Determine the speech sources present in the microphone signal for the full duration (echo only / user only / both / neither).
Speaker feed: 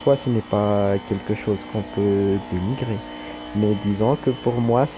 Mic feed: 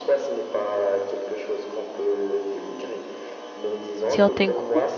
both